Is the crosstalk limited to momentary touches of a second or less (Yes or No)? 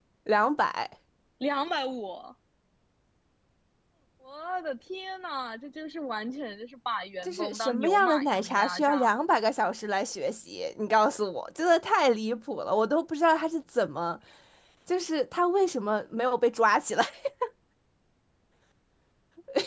No